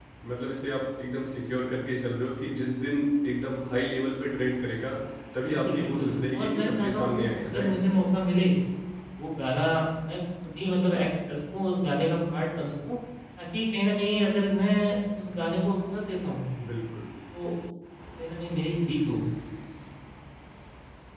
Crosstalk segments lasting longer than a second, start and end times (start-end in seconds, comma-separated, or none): 5.4-7.8